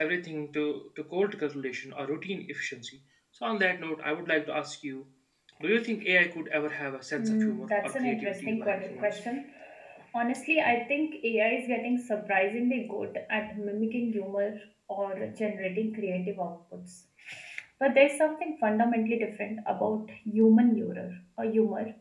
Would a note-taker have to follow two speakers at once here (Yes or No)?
Yes